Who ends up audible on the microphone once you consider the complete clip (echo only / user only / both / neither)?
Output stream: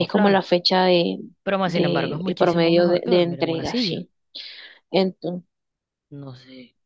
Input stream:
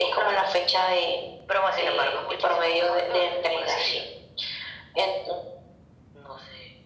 echo only